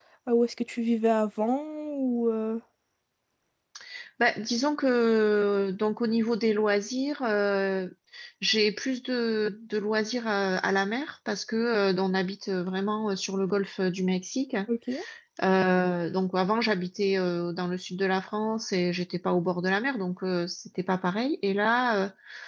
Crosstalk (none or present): none